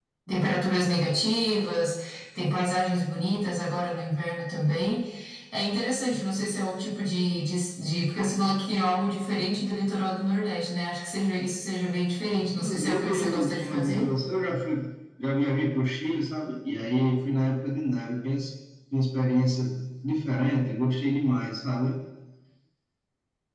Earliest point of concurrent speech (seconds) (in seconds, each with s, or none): 12.3 s